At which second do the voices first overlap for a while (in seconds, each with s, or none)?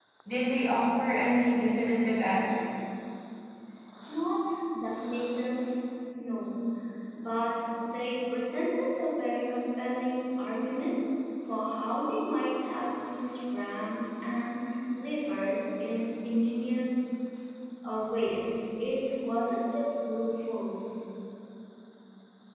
none